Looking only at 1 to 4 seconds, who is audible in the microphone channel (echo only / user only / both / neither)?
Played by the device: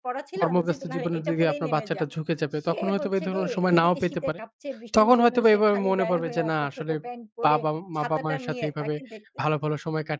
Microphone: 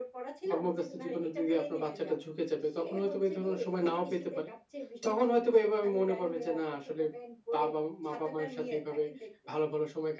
echo only